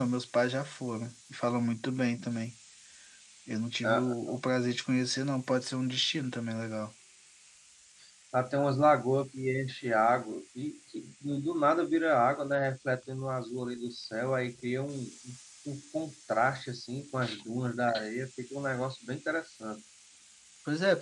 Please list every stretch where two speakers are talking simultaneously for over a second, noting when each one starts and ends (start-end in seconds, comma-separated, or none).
none